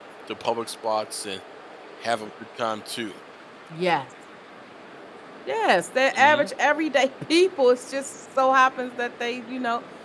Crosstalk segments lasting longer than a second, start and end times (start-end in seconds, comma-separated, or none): none